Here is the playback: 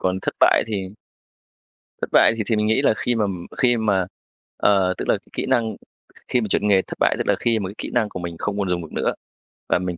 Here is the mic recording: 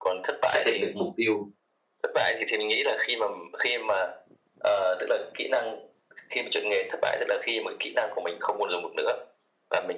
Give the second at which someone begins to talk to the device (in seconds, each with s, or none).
0.4 s